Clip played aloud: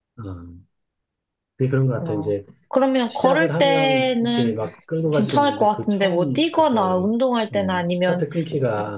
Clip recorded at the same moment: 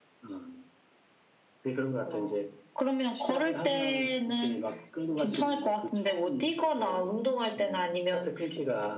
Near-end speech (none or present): none